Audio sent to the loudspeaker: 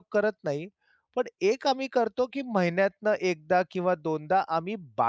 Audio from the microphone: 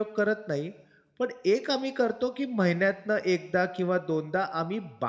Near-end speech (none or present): none